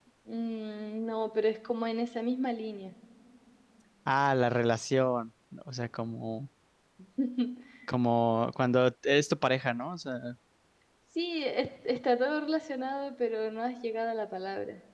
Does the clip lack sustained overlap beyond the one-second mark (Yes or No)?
Yes